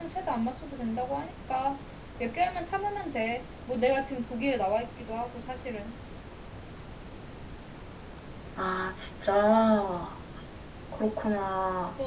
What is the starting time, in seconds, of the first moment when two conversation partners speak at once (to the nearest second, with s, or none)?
none